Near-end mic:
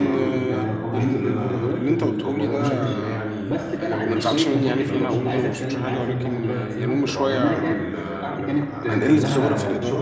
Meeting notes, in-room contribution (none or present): present